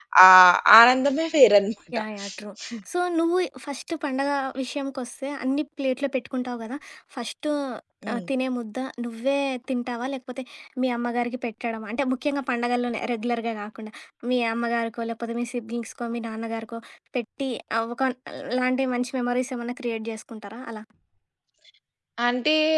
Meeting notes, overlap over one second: none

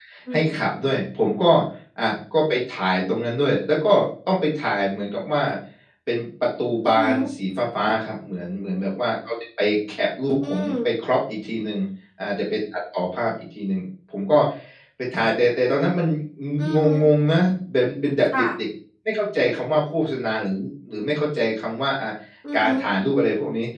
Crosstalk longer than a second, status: none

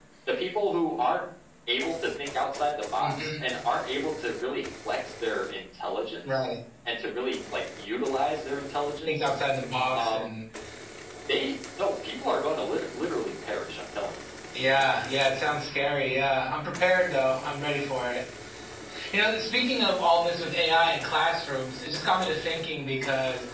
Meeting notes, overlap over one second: none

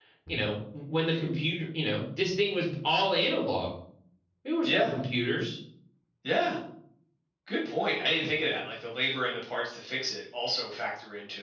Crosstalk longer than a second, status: none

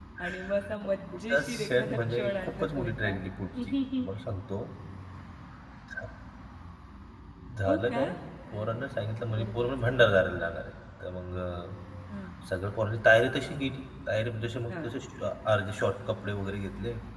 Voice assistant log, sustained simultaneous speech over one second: present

